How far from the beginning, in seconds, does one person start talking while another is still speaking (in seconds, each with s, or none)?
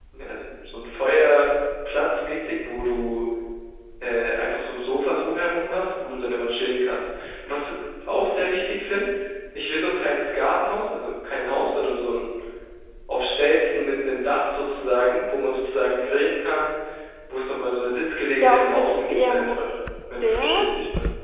18.4 s